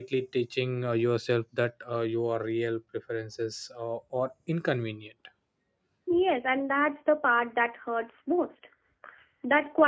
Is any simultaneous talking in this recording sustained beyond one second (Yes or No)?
No